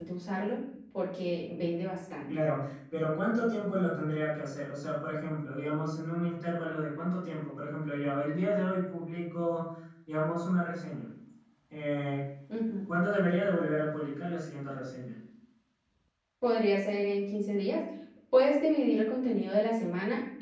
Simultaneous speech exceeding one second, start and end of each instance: none

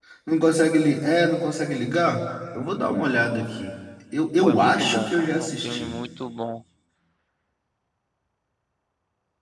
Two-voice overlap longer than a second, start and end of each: 4.4-6.0

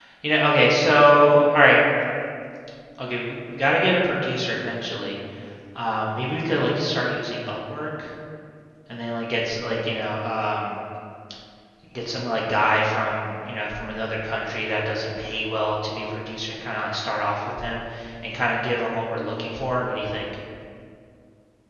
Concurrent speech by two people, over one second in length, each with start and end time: none

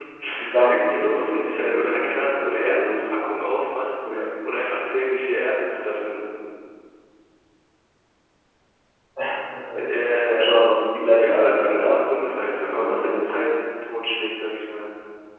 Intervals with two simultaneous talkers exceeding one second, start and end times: 0.5-3.0, 11.2-13.2

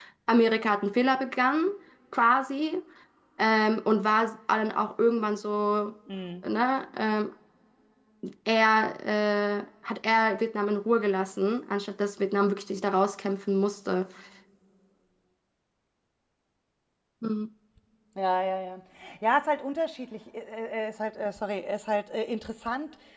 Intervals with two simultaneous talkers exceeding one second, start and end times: none

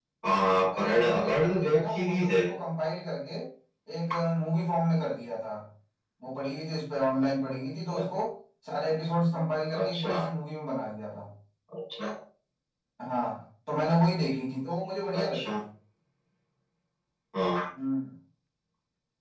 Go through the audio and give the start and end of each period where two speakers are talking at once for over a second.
0.7-2.4

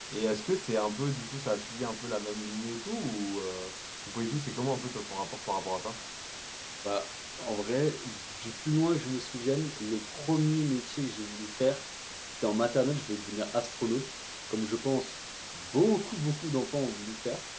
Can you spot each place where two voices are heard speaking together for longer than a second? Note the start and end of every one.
none

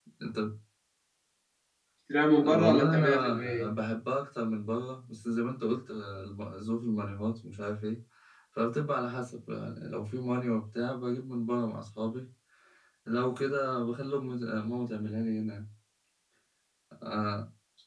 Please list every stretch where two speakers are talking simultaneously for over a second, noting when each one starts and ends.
2.5-3.7

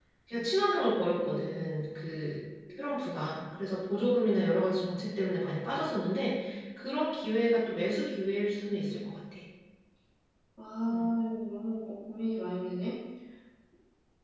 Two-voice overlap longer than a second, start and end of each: none

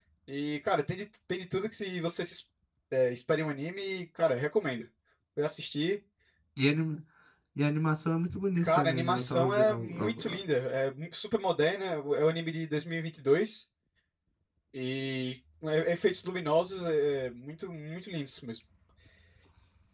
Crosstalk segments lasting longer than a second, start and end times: 8.6-10.4

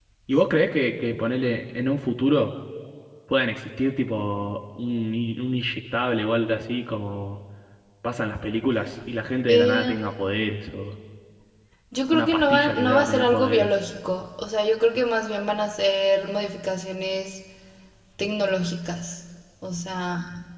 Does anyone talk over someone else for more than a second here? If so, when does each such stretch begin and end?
12.1-13.7

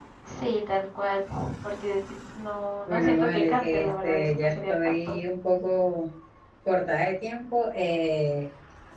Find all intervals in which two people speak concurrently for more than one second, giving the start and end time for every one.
2.9-5.2

